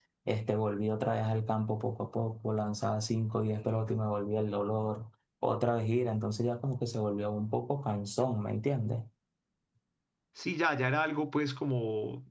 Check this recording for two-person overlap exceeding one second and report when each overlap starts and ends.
none

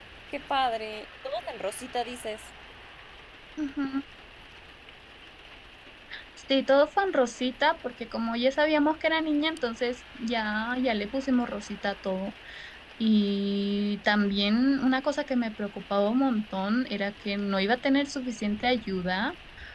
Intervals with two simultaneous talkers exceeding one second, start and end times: none

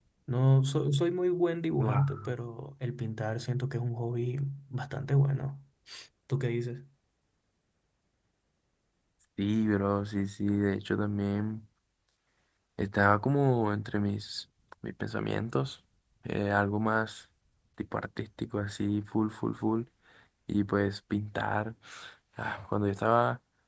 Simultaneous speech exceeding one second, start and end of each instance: none

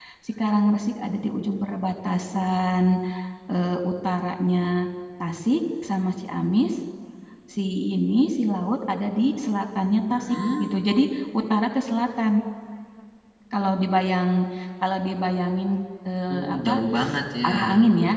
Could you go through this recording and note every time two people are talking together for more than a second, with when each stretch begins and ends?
none

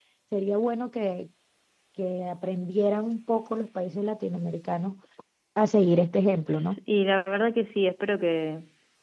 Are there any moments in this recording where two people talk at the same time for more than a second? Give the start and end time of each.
none

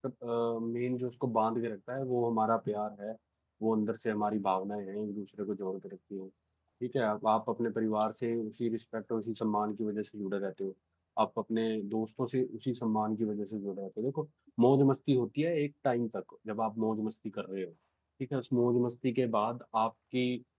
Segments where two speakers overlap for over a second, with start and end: none

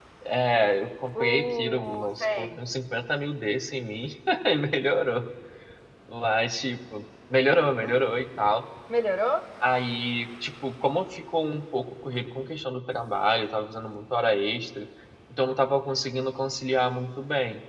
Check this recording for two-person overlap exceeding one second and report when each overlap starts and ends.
1.2-2.5

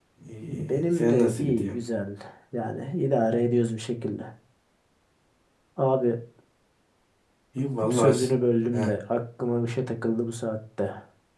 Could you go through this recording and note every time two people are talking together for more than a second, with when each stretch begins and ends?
0.5-1.8

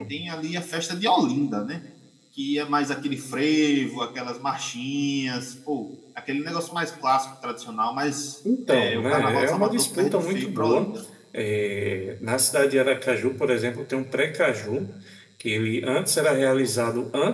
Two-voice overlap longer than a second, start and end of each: 8.7-10.9

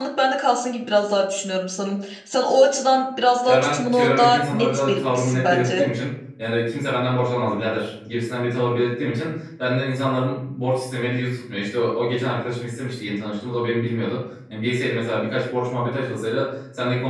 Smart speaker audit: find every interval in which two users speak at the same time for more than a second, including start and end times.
3.5-5.8

